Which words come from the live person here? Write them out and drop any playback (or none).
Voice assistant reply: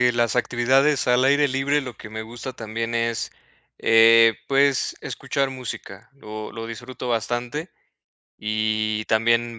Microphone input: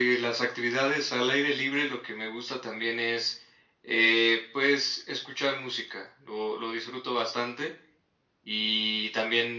none